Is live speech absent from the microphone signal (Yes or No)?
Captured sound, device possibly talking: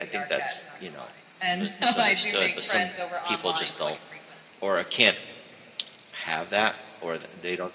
No